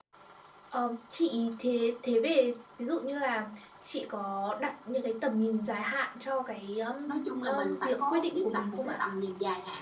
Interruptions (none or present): present